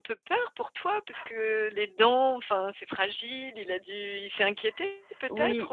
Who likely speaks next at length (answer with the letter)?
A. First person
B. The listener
B